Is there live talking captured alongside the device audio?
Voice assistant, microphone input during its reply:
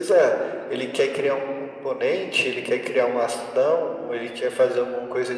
No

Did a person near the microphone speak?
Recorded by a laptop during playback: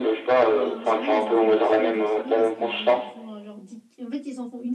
Yes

